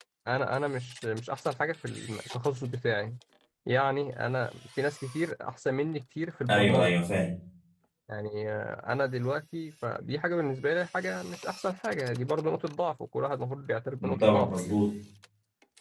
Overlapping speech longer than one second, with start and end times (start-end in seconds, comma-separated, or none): none